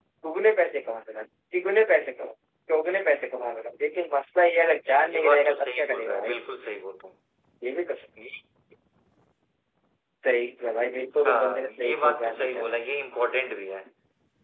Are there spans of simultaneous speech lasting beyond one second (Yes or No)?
Yes